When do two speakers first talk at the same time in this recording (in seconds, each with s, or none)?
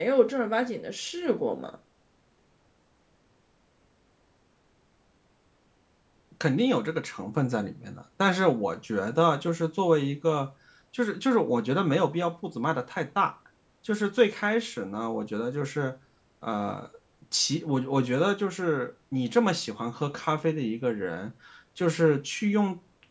none